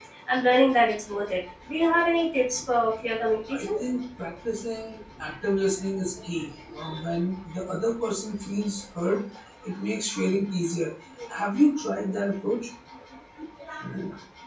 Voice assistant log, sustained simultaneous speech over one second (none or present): none